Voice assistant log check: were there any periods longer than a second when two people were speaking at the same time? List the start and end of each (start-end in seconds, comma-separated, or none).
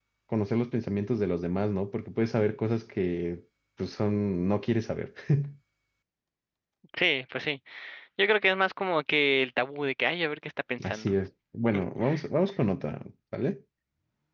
none